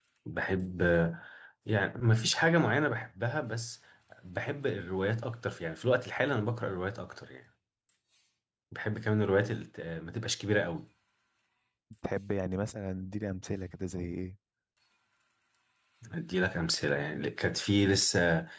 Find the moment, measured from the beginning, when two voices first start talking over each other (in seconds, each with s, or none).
none